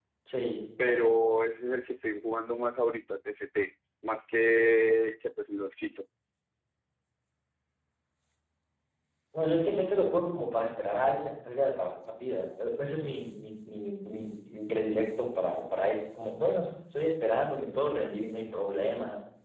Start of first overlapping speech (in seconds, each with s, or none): none